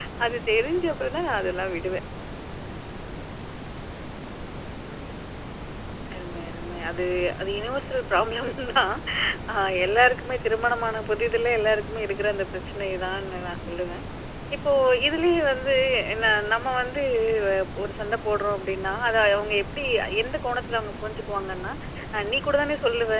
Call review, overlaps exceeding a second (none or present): none